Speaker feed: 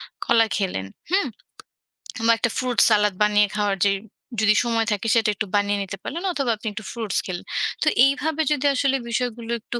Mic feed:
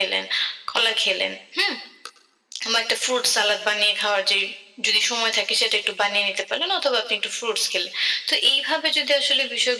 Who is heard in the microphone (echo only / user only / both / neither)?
echo only